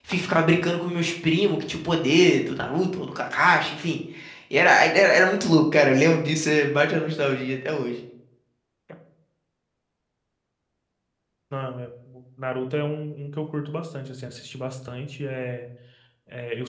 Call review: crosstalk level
none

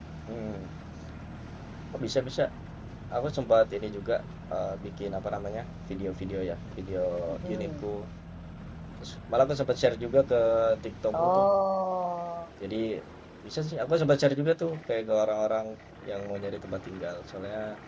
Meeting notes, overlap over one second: none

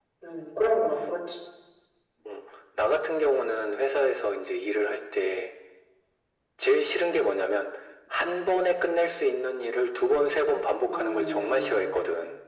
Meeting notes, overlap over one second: present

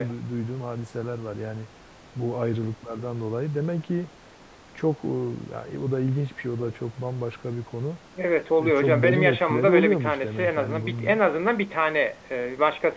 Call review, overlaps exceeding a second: present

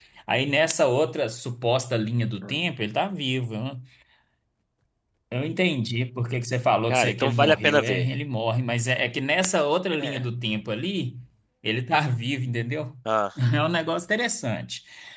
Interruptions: present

